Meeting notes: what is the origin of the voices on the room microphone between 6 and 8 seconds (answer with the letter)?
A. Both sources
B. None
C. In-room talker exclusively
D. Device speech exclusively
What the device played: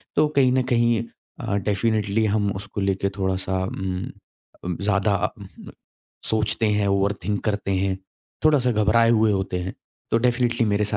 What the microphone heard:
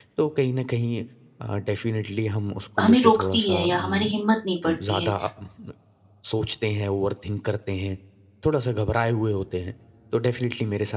D